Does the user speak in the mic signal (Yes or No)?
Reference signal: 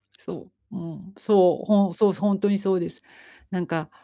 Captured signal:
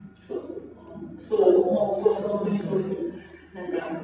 Yes